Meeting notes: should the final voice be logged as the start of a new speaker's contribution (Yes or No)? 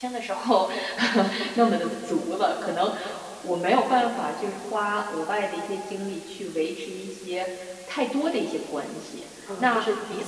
Yes